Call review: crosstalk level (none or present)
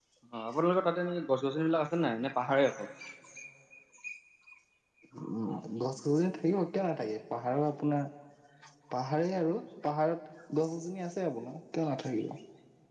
none